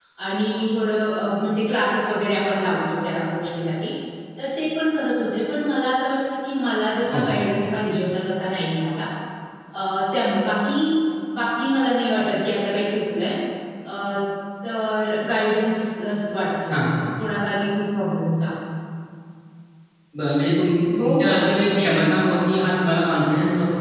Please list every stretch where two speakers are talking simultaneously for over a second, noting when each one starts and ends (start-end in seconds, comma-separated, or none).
21.0-22.2